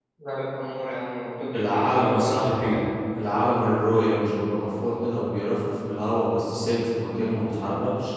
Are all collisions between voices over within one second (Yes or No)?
No